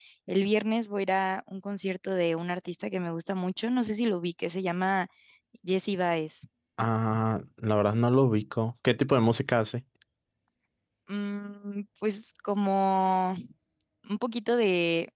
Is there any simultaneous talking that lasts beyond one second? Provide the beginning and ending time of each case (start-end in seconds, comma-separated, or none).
none